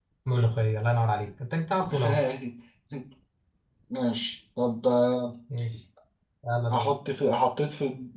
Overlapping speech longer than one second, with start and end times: none

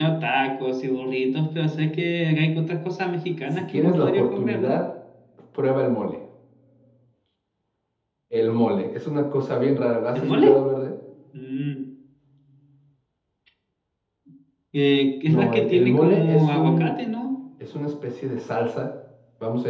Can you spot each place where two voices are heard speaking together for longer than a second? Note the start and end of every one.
3.5-4.8, 15.3-16.9

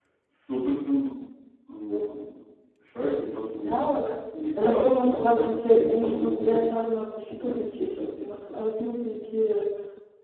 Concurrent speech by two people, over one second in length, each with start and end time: 4.6-6.7

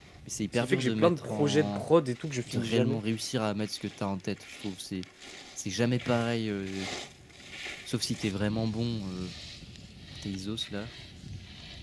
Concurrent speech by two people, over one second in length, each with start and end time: 0.5-1.8

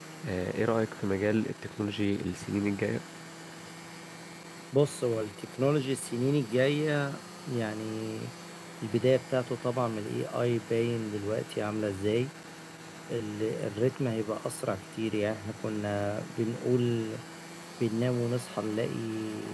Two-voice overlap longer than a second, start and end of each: none

